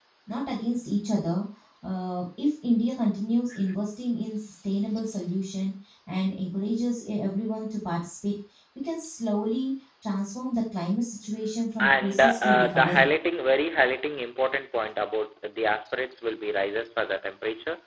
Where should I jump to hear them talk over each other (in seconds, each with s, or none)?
11.8 s